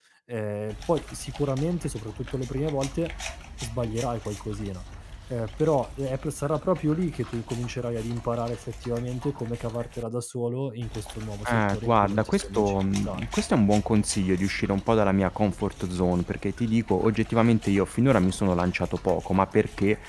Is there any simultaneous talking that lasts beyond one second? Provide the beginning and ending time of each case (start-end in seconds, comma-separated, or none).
11.5-13.2